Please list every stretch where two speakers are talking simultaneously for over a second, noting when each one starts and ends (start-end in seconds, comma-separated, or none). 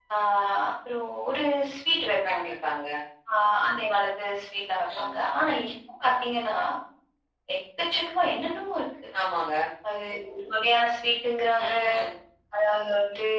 none